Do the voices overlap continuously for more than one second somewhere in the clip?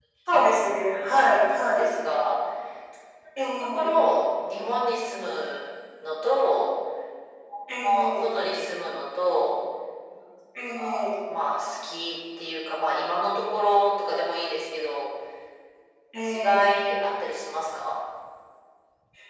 No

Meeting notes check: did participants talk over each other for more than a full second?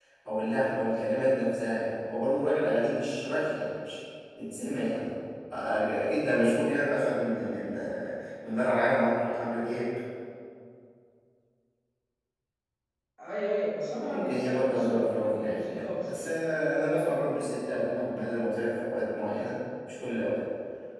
Yes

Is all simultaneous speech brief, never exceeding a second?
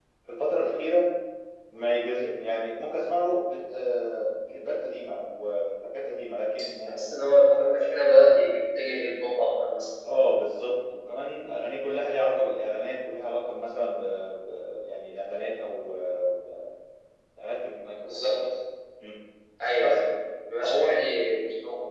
Yes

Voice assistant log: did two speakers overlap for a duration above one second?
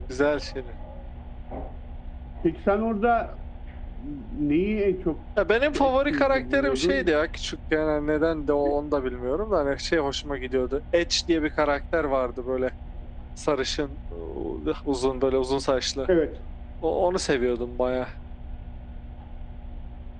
Yes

